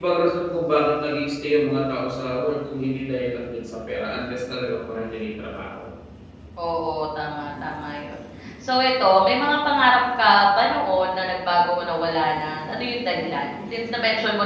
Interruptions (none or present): none